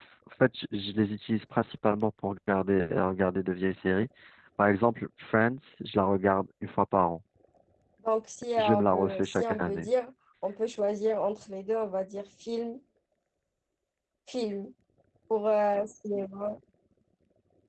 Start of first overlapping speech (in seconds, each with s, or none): 8.6 s